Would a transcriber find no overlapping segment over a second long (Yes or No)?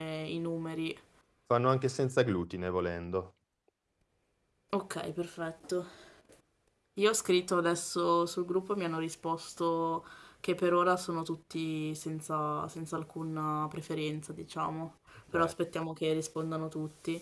Yes